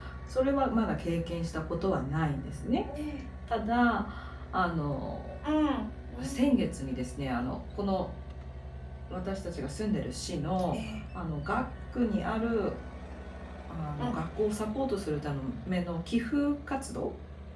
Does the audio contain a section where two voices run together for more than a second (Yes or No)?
No